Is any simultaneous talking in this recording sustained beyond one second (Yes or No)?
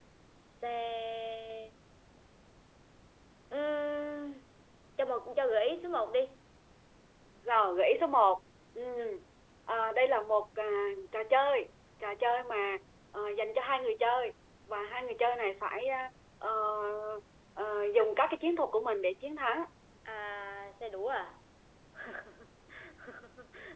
No